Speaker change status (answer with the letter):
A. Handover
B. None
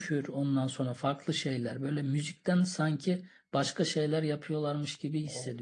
A